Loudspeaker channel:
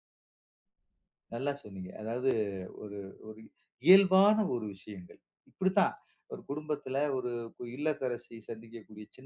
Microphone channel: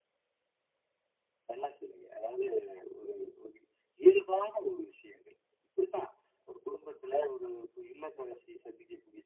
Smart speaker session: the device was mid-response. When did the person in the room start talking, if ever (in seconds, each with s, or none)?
none